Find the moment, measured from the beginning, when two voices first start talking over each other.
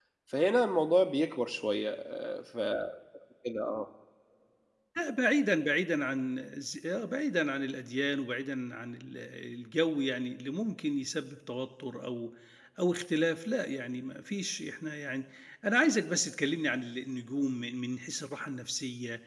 none

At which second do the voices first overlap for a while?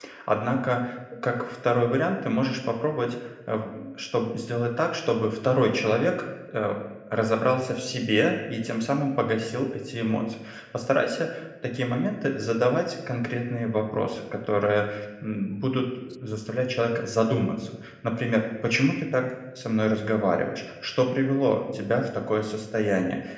none

